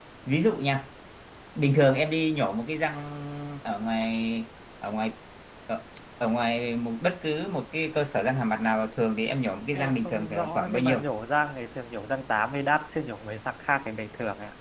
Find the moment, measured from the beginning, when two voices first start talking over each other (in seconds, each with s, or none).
9.7 s